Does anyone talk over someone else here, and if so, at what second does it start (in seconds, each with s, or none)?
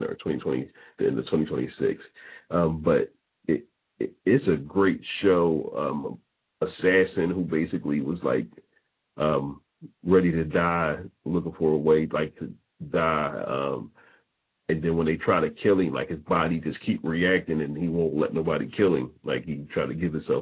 none